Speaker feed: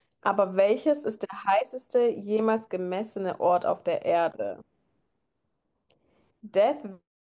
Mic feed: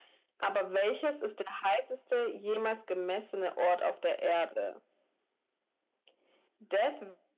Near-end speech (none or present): none